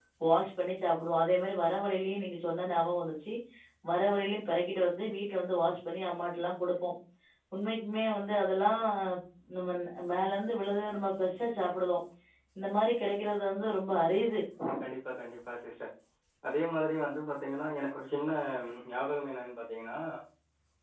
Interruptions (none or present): none